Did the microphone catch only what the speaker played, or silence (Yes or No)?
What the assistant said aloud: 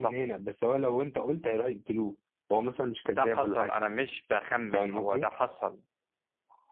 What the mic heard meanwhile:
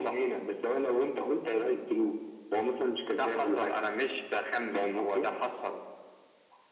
Yes